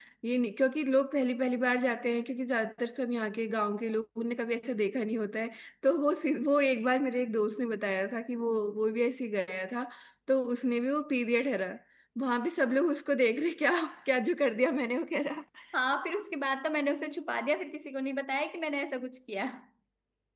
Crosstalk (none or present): none